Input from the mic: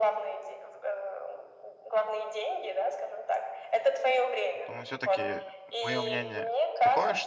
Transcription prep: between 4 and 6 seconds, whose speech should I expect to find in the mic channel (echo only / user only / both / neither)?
both